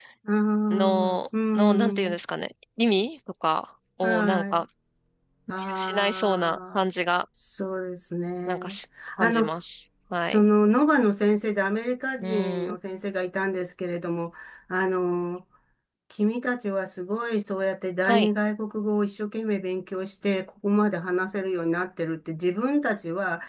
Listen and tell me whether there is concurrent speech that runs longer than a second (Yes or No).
Yes